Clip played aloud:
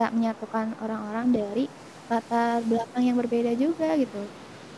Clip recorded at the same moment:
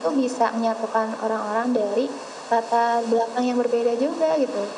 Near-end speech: none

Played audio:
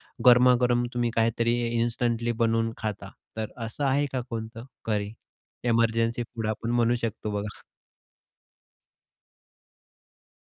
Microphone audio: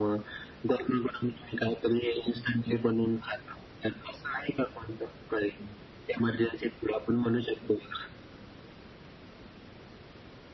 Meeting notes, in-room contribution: none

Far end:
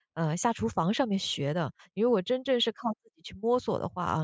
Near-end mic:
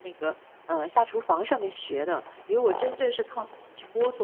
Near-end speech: none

